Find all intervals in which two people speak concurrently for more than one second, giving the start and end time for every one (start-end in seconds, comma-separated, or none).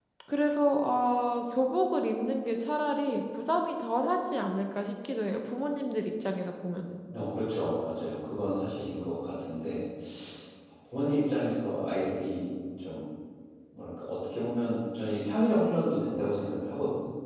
none